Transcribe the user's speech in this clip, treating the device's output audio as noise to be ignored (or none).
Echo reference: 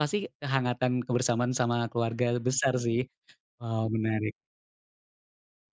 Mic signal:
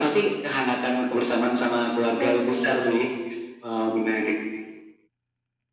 Heeh.